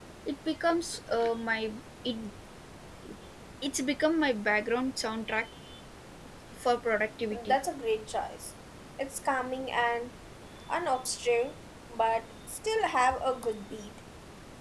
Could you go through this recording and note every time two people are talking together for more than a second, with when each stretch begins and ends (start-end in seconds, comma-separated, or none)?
none